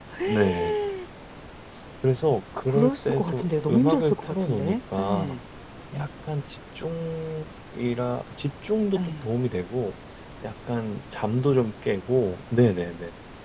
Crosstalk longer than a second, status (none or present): present